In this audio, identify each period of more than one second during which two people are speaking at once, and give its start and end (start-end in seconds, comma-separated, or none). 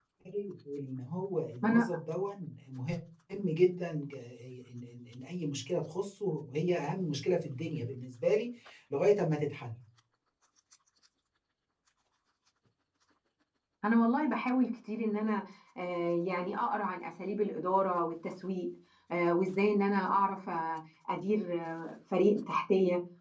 none